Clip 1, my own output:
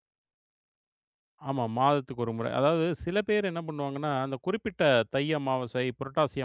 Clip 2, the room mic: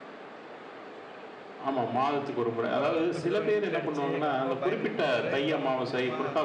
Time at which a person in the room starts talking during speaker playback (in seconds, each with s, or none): 2.8 s